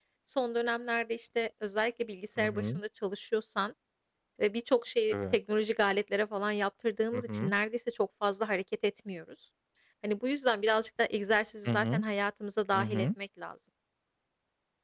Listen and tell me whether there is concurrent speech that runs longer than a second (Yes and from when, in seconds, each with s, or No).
No